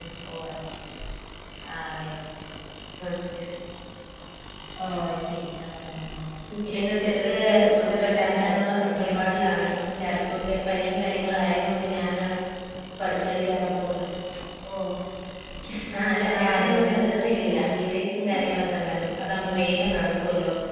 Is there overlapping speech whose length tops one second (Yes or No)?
Yes